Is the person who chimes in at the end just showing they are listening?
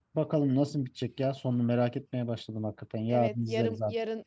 No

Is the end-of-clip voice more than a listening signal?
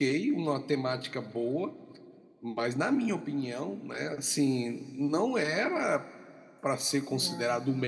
No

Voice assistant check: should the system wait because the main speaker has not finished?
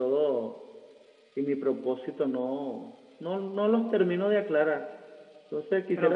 Yes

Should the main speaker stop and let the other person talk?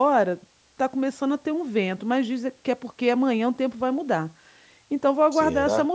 No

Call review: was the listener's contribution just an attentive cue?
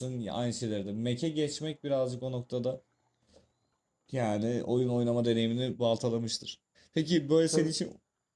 Yes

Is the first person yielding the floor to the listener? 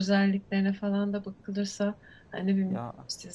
No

